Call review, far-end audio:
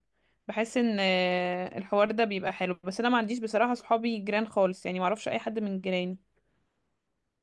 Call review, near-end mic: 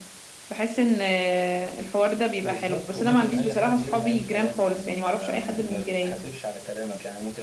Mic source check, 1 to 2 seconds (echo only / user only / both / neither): echo only